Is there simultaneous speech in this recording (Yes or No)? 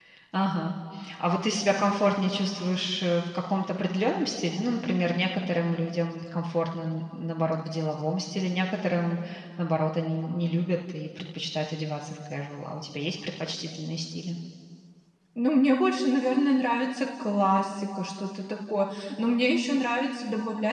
No